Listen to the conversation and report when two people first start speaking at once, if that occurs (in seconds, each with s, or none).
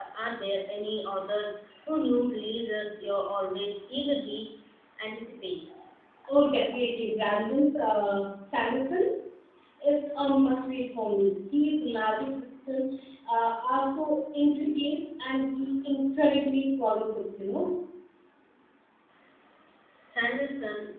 none